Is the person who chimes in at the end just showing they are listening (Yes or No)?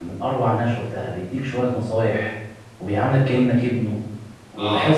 No